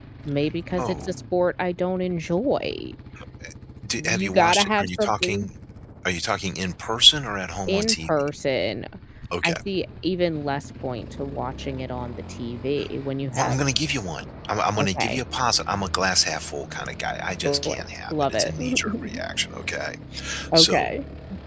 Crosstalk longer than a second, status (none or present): present